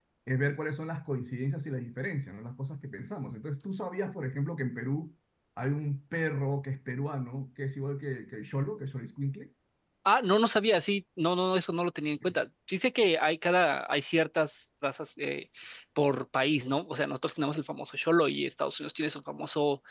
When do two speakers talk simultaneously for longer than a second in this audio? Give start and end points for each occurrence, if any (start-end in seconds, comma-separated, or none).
none